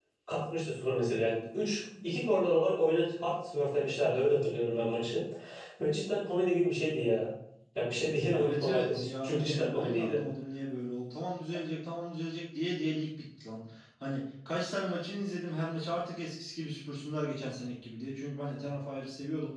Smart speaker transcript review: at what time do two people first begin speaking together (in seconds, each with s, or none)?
8.4 s